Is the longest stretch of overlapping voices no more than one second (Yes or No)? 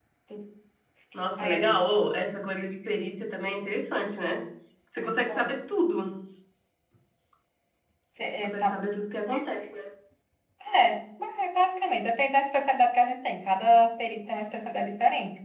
Yes